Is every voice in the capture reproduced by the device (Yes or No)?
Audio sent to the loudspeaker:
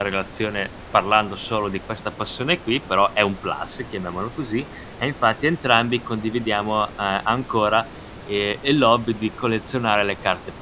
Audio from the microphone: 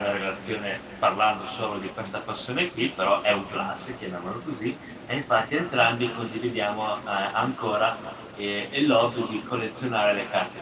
Yes